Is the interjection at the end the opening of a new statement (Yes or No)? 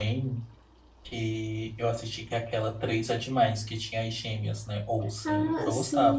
Yes